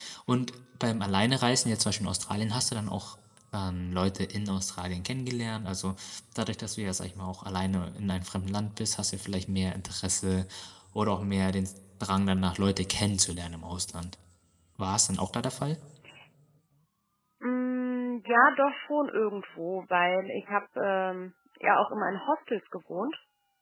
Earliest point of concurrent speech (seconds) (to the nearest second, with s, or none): none